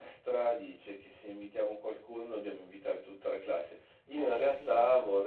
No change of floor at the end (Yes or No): Yes